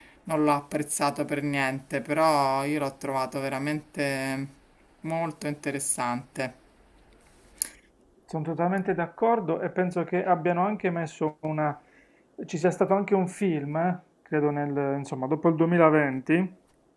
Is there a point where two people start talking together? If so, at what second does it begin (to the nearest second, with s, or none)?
none